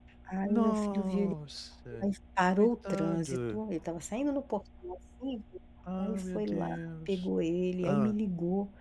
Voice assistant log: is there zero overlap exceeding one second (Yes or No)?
No